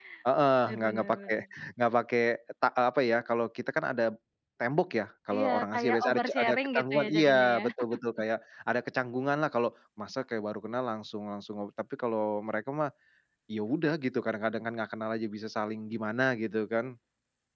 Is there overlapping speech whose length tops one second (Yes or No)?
Yes